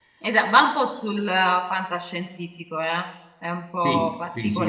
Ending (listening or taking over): taking over